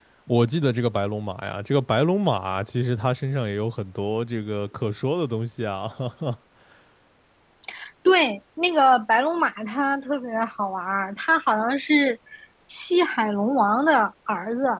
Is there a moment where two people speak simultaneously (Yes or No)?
No